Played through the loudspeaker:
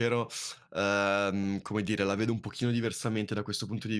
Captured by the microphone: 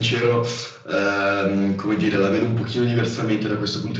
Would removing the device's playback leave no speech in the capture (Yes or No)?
Yes